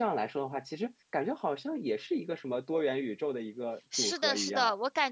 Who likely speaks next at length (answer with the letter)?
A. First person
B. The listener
B